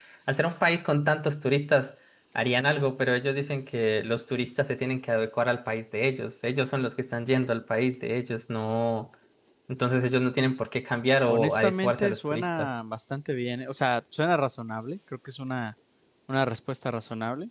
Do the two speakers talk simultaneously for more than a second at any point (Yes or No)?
Yes